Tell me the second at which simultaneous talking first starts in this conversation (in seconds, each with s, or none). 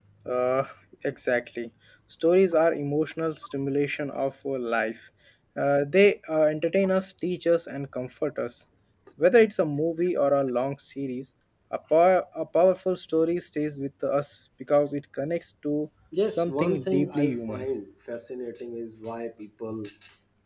16.1 s